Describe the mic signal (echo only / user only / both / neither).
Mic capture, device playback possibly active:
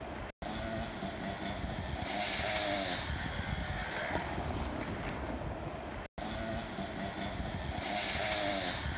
neither